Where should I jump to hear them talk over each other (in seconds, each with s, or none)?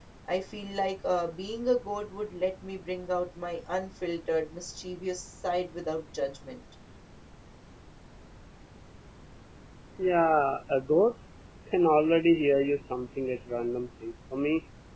none